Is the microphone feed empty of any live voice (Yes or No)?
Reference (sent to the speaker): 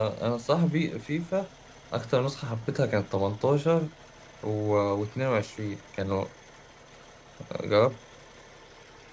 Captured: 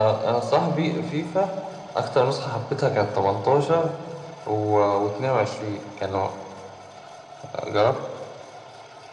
Yes